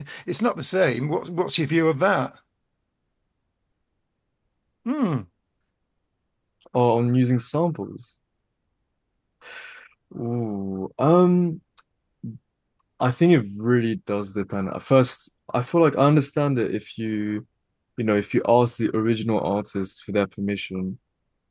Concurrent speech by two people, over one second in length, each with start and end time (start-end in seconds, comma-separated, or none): none